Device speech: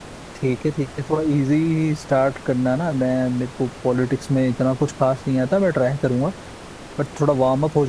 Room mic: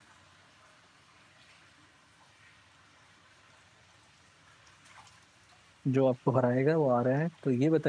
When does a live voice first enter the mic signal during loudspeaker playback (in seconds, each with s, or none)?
5.9 s